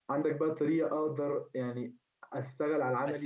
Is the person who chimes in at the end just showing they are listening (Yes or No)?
No